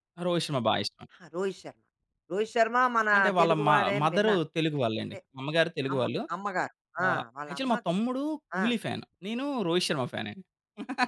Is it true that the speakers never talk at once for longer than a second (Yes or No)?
No